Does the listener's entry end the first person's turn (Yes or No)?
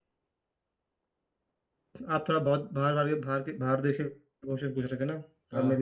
No